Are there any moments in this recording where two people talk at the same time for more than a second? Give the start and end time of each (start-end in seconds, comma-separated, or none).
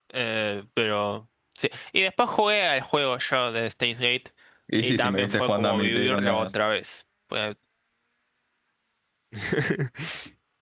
4.8-6.5